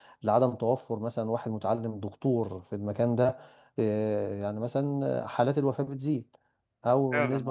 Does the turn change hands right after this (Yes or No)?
No